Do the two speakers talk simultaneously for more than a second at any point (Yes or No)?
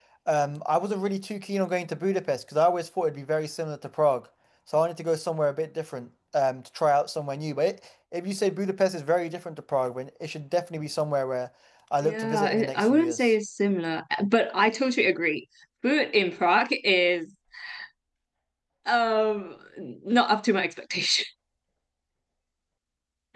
Yes